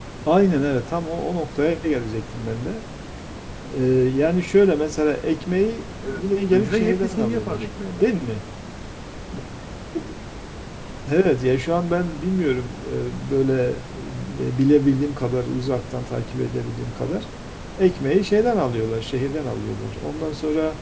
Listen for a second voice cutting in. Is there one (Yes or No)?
Yes